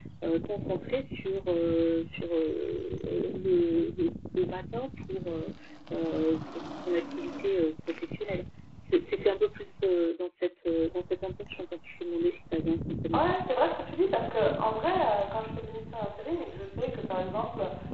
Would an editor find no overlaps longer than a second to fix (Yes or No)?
Yes